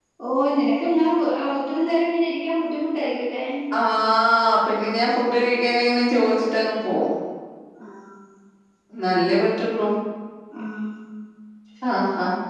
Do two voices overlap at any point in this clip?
No

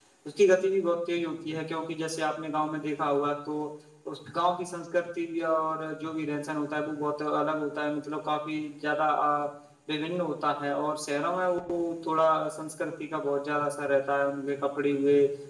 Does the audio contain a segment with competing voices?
No

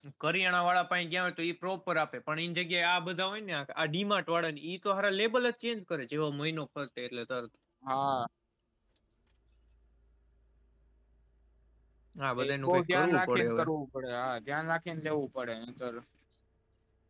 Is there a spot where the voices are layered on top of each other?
Yes, from 12.4 s

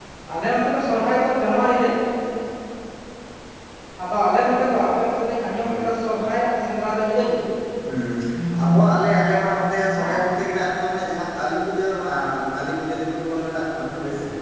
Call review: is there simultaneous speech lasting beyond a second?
No

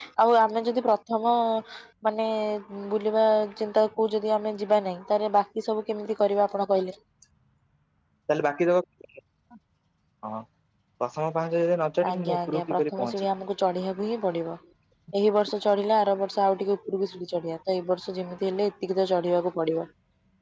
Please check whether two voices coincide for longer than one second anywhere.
Yes, from 12.0 s

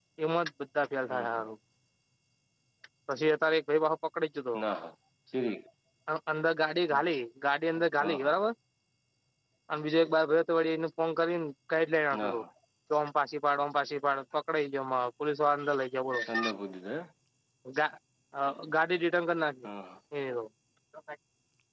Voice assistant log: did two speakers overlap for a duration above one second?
No

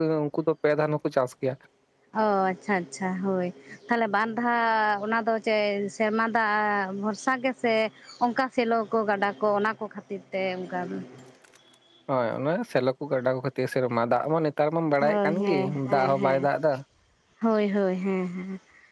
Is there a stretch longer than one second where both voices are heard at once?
Yes, from 15.0 s

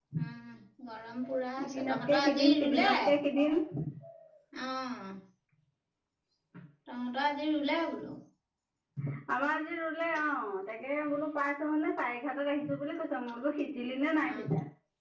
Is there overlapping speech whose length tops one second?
Yes, from 1.7 s

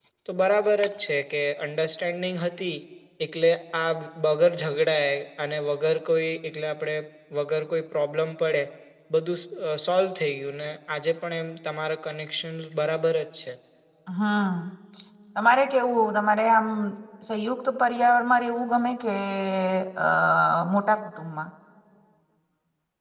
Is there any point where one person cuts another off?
No

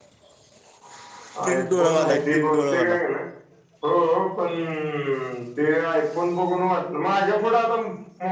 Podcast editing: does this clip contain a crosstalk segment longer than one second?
Yes, from 1.4 s

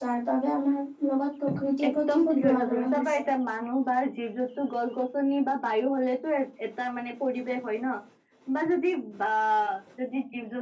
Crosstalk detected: Yes, from 1.9 s

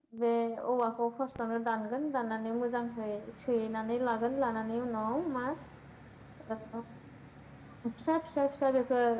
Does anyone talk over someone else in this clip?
No

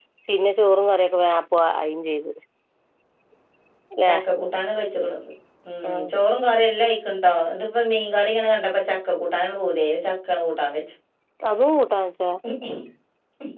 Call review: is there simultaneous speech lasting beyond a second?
No

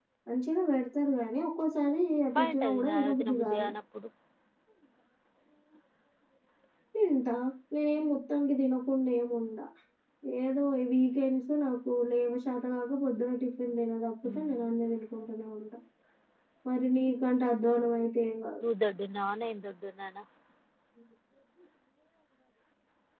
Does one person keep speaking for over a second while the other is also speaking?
Yes, from 2.4 s

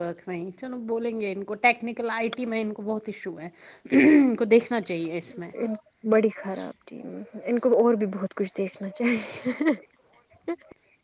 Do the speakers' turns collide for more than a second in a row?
No

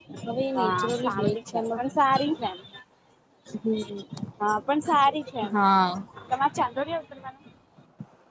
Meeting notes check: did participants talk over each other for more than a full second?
Yes, from 0.6 s

